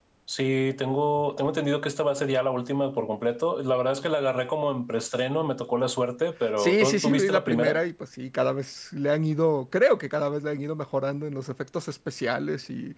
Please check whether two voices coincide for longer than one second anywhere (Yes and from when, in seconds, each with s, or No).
Yes, from 6.6 s